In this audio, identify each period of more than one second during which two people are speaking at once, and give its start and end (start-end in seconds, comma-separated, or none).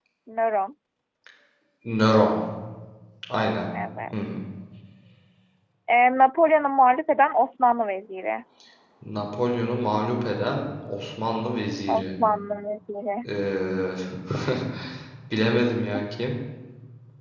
none